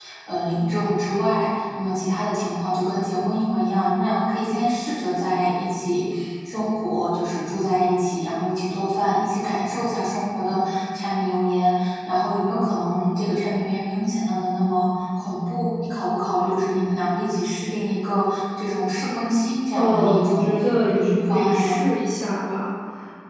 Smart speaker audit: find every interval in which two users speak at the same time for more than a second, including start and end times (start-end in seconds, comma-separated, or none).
19.7-21.8